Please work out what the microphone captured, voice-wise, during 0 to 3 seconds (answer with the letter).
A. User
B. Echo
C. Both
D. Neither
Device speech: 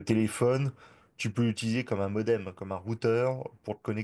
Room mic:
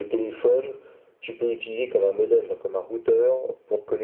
B